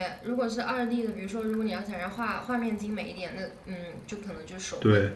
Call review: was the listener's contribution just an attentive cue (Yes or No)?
Yes